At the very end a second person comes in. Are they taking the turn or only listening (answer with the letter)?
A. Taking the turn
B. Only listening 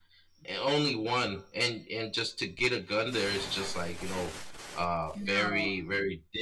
B